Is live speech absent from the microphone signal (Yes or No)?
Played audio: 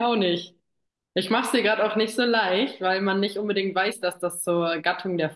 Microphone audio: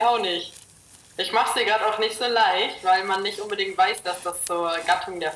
Yes